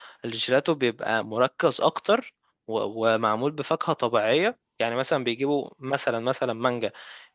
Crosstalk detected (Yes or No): No